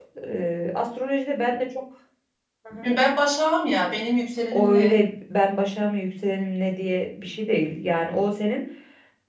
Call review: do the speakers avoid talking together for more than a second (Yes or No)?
Yes